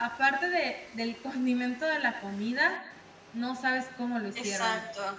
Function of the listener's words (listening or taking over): taking over